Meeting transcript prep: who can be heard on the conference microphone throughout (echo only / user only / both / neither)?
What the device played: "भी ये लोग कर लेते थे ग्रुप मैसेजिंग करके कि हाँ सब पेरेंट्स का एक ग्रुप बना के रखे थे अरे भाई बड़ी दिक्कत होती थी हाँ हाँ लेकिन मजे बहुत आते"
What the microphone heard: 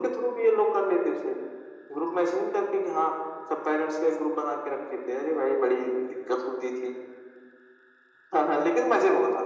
echo only